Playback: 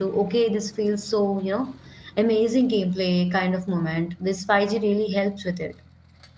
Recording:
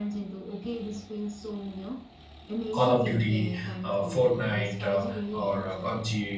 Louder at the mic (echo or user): user